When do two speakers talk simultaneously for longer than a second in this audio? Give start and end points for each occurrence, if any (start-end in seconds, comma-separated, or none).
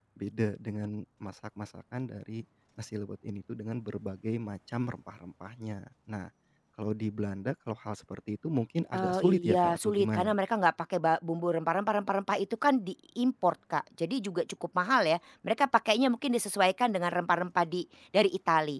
8.9-10.3